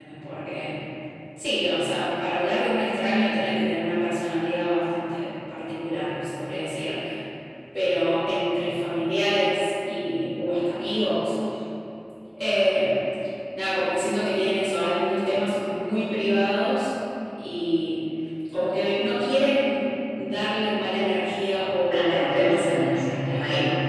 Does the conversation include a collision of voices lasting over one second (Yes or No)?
Yes